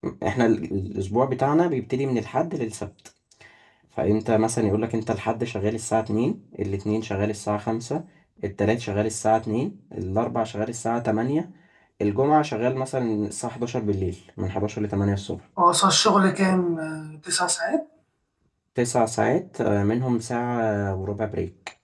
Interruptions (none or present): none